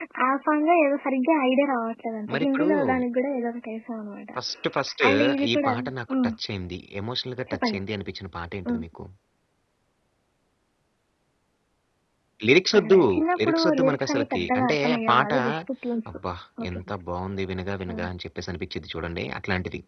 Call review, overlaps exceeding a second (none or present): present